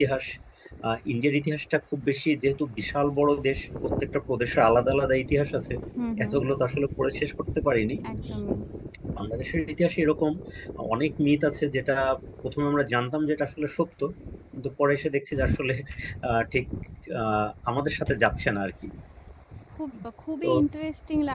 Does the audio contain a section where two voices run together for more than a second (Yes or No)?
No